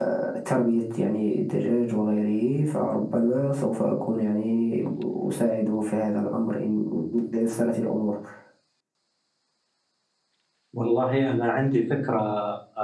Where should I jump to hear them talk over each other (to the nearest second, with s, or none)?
none